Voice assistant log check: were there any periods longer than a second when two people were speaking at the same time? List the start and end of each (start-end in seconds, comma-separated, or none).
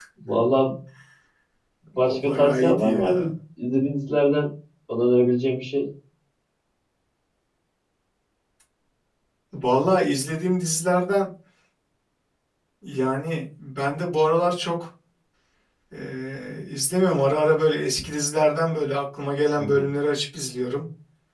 2.0-3.3